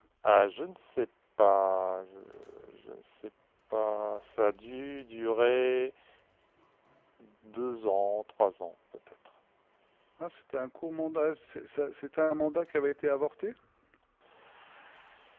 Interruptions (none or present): none